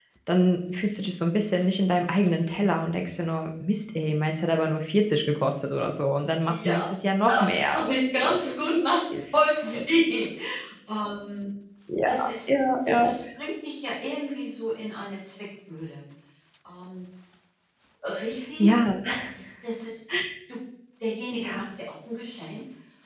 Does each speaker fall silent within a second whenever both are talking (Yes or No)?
No